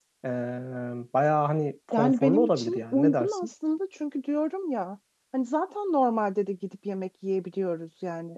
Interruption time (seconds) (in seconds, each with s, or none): 1.9 s